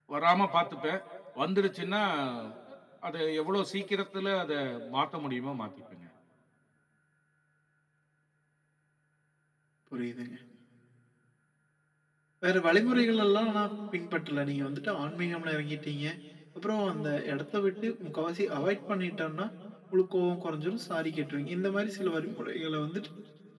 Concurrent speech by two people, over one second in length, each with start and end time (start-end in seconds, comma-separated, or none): none